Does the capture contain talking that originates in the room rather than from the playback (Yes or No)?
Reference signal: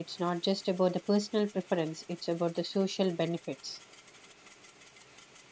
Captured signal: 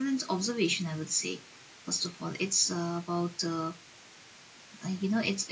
Yes